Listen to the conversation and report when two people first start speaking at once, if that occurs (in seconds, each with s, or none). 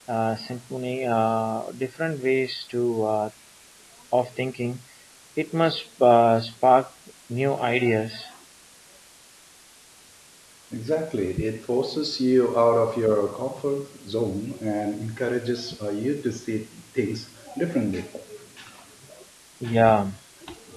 none